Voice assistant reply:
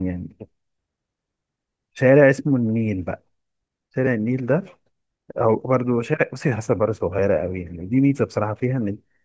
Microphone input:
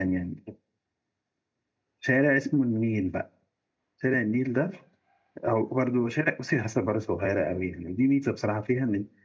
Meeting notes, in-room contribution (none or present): none